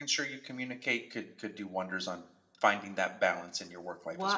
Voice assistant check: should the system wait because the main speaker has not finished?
No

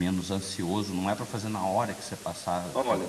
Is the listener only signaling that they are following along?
No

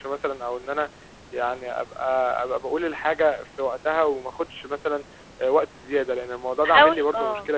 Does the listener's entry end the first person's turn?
Yes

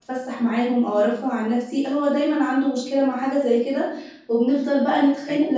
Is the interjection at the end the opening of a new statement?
No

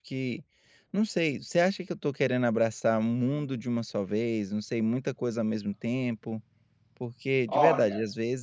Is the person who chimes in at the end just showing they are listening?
Yes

